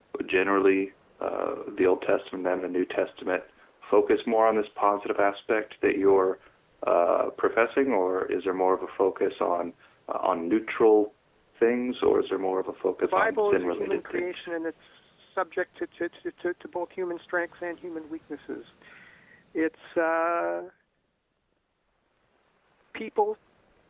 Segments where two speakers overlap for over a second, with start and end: 13.0-14.5

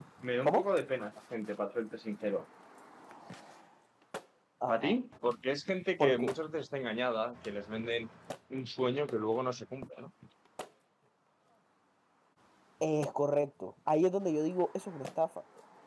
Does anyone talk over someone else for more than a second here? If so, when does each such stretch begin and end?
none

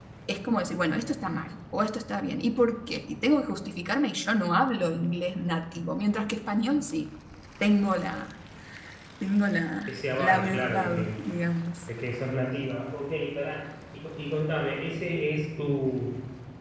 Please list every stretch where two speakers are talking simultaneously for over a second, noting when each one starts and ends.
9.9-11.1

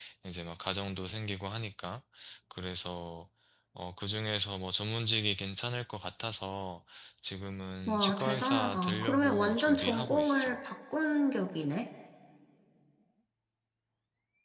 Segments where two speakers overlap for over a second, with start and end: 7.9-10.6

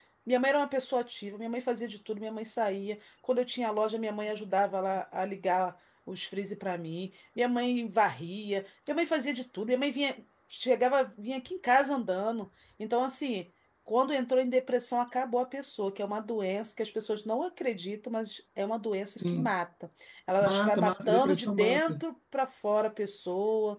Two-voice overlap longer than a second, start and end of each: 20.4-22.0

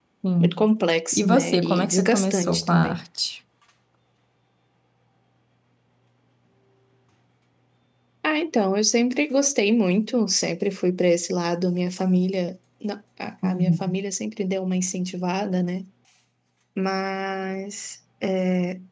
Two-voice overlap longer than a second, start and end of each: 1.1-3.0

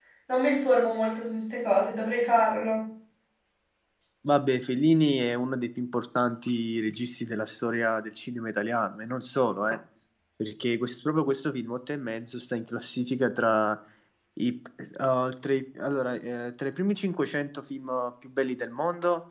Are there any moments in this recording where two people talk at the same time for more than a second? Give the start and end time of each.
none

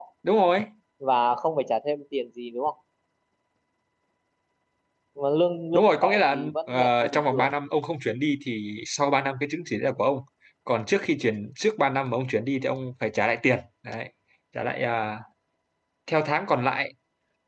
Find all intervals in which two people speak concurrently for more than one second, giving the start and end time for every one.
5.7-7.5

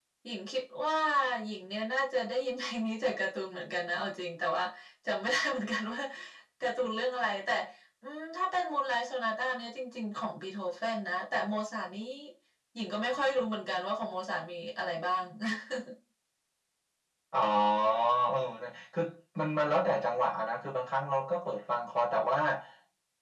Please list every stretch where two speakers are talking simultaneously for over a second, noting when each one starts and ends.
none

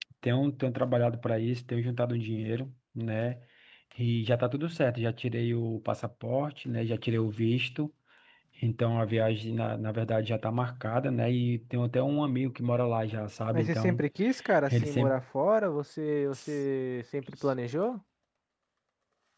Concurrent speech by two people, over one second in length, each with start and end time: none

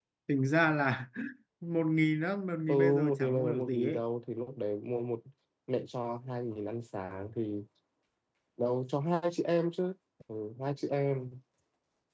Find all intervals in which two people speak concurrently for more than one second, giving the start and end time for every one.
2.7-4.0

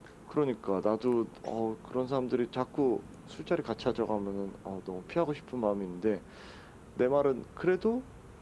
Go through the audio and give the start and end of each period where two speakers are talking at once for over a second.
none

